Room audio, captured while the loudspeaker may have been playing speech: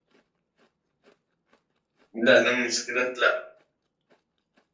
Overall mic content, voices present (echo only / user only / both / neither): user only